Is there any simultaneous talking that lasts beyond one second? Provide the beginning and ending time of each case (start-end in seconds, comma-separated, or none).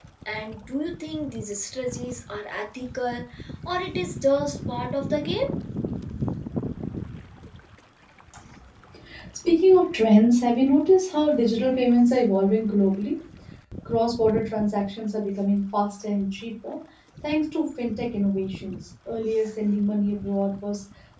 none